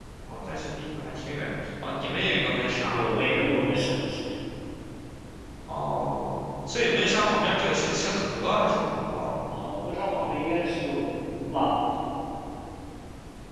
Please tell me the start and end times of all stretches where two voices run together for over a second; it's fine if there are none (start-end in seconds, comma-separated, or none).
none